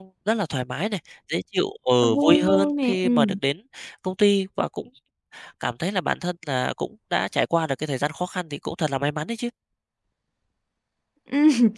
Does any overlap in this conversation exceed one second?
Yes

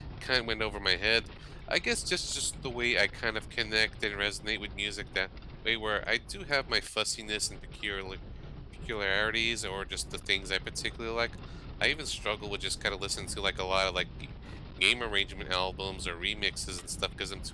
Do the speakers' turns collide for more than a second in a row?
No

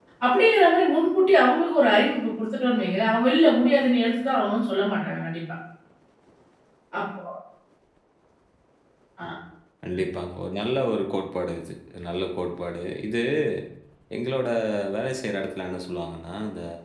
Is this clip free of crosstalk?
Yes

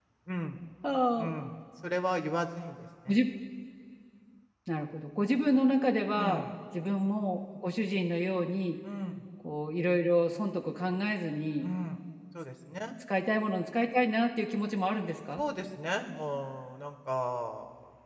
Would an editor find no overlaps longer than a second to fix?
Yes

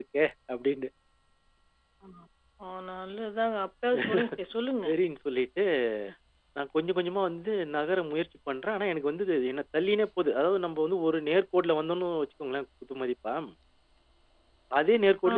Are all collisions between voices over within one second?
Yes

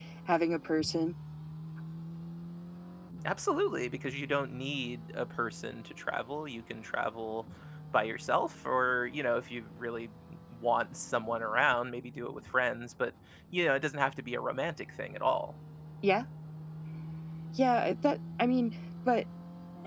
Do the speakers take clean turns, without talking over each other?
Yes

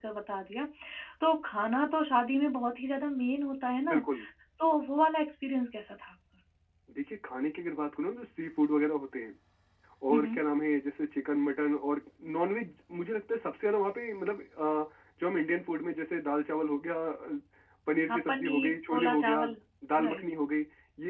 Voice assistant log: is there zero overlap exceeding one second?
No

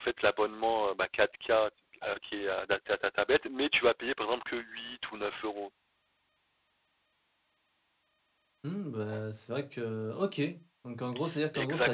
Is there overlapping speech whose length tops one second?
No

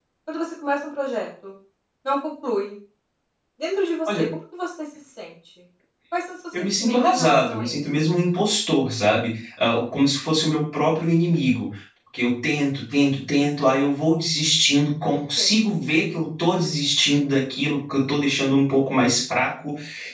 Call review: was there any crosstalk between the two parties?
Yes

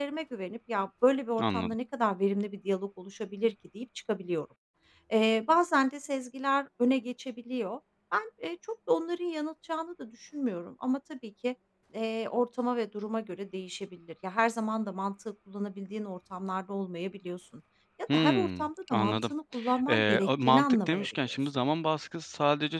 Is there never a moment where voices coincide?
No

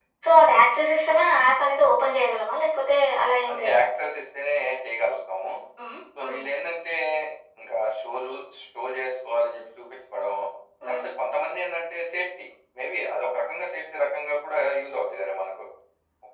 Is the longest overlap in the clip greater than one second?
No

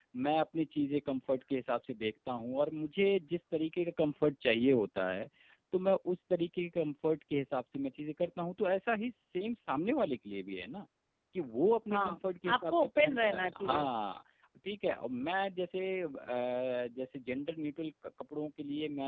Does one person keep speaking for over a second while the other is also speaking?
Yes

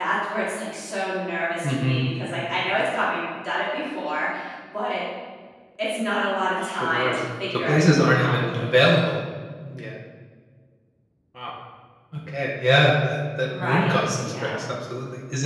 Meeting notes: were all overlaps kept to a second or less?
No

